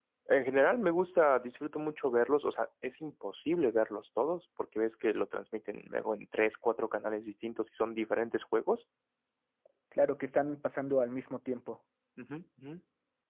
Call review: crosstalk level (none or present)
none